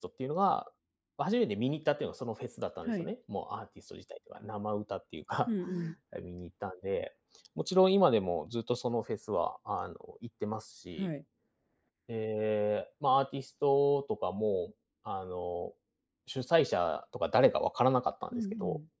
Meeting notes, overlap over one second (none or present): none